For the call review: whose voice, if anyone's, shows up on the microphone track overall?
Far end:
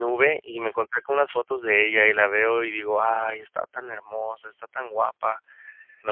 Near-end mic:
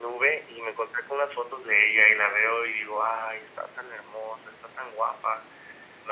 echo only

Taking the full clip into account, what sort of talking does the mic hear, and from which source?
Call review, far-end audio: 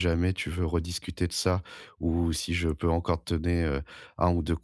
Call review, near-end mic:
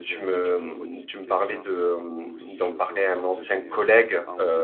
both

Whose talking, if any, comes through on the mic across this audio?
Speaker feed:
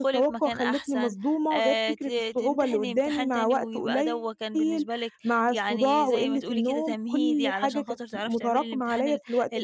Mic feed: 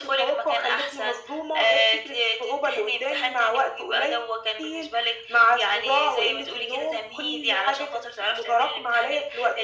echo only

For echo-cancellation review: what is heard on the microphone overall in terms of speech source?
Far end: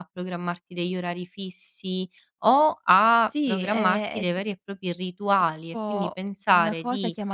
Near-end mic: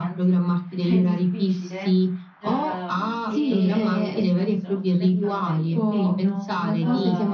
both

